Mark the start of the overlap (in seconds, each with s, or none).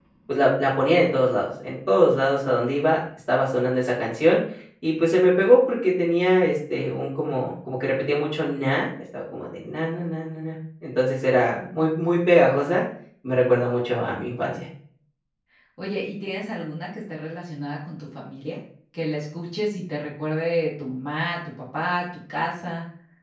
none